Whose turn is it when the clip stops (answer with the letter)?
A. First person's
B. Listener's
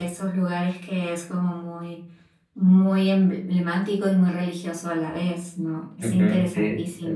B